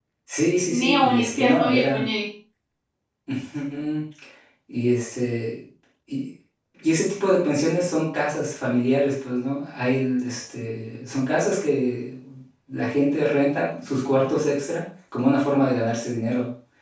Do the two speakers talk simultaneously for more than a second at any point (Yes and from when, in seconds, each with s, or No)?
Yes, from 0.7 s